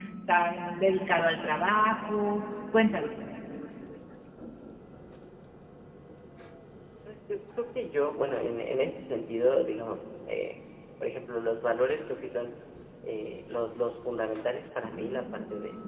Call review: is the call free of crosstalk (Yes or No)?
Yes